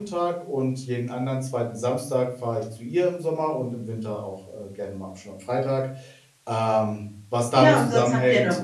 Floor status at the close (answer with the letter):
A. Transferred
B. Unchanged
A